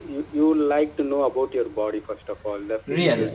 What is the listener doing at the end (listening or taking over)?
listening